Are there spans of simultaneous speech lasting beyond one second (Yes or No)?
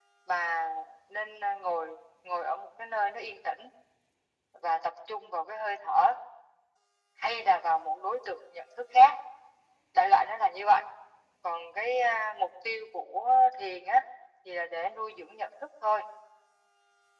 No